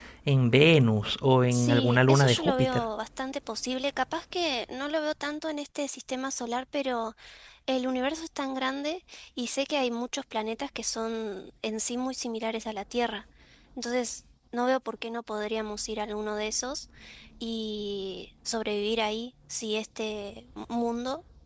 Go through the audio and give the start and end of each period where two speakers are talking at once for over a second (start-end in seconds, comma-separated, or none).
1.5-2.8